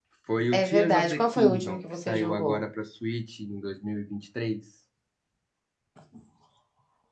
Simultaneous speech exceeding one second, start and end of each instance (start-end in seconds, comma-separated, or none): 0.5-2.6